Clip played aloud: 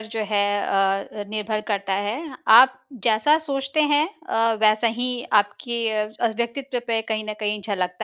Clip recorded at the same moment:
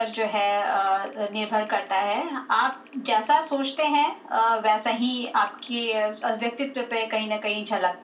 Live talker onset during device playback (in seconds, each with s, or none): none